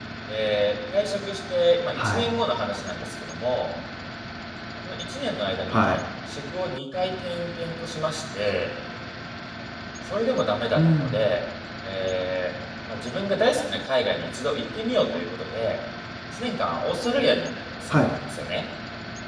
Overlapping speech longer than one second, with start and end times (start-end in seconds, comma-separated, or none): none